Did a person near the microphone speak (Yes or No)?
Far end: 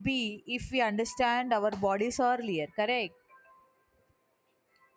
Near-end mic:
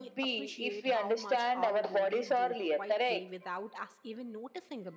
Yes